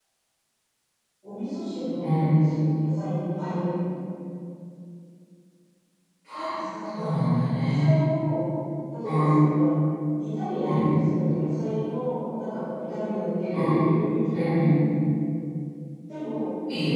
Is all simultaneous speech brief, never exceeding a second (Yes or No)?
Yes